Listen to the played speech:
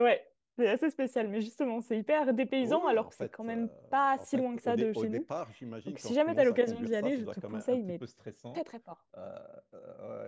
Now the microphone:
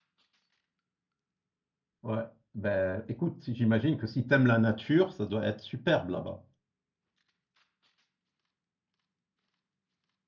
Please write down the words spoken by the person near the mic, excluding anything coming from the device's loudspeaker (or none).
Ouais. Ben, écoute, j'imagine que si tu aimes la nature, ça doit être superbe là-bas.